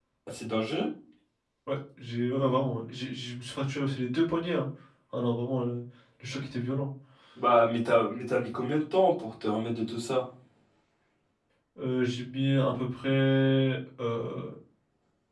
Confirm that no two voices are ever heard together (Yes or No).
Yes